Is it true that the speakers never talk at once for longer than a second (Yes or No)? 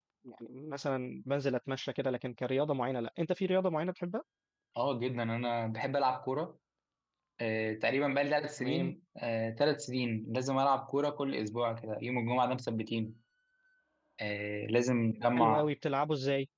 Yes